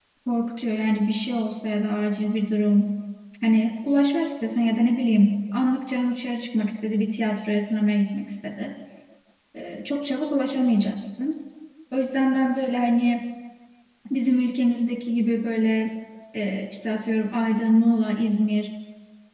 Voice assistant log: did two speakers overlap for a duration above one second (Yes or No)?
No